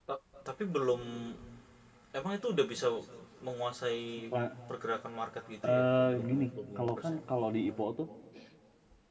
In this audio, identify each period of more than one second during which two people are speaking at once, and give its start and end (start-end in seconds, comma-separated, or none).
5.6-7.2